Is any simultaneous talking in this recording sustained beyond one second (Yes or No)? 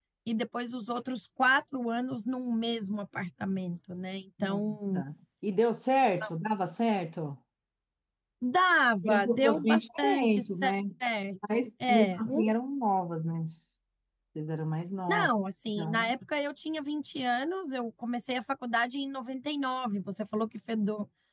Yes